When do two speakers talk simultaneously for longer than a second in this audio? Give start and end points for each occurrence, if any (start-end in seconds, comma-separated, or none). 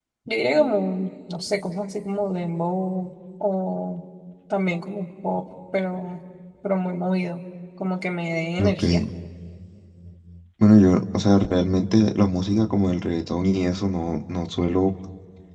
none